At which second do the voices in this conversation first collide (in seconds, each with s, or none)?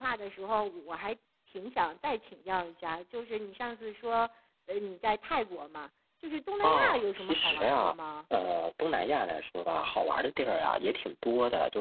6.6 s